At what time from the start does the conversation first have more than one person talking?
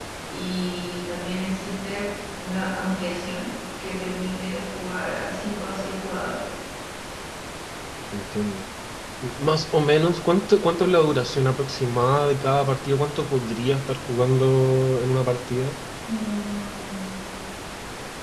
none

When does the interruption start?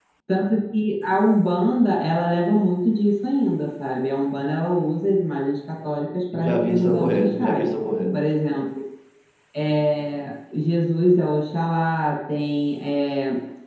6 s

